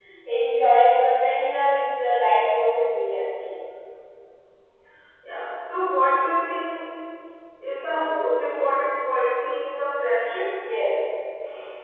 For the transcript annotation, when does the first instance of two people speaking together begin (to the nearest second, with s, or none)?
none